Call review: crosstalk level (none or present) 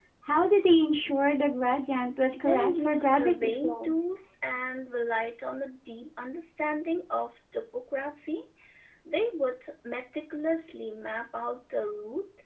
present